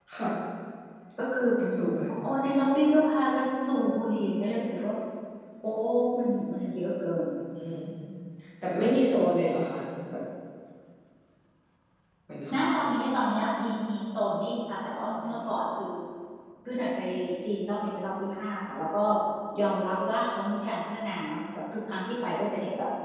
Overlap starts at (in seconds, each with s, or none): none